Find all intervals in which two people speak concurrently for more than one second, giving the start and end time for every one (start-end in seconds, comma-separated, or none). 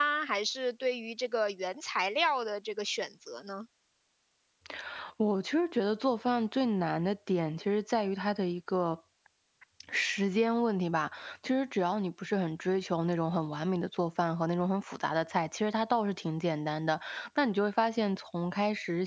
none